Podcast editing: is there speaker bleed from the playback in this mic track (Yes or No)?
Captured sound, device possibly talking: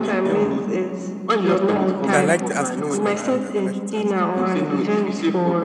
Yes